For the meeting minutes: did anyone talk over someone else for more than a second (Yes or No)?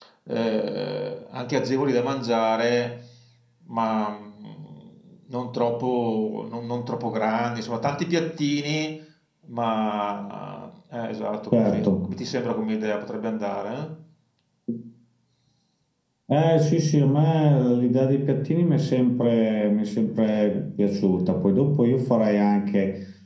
No